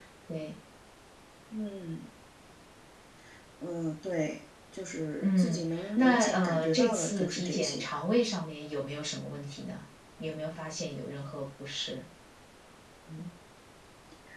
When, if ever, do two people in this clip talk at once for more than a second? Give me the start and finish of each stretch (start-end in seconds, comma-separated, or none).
5.2-7.9